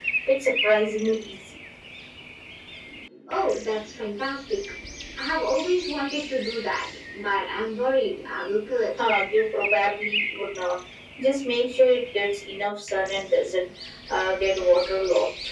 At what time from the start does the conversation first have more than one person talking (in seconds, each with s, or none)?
none